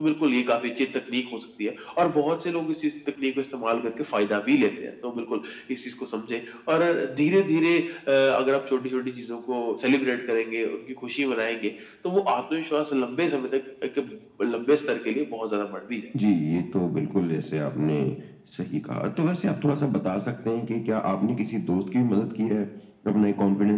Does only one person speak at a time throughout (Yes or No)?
Yes